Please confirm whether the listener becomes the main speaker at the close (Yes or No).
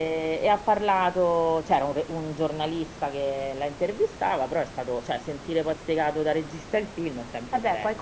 Yes